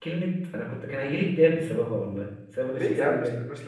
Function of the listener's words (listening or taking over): taking over